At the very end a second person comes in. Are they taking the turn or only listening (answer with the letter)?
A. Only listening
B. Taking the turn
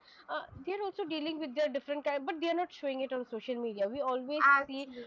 A